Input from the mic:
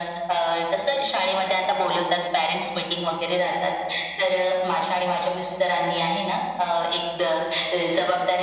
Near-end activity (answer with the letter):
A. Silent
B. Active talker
A